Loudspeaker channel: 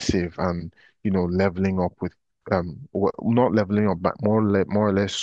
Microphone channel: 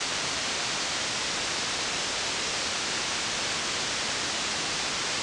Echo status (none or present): none